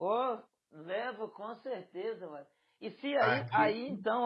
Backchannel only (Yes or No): Yes